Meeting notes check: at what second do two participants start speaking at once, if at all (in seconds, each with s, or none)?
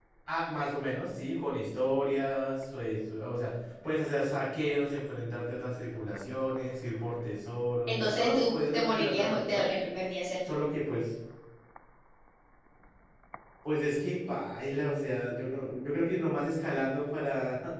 7.9 s